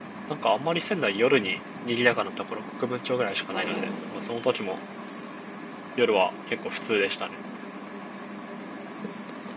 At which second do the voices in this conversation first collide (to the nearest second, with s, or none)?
none